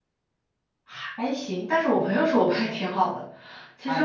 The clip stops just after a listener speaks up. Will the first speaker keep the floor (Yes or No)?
No